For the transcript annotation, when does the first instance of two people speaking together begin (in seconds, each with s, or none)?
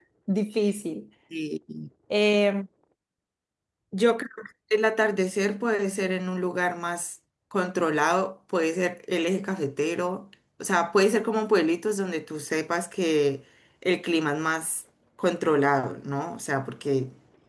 none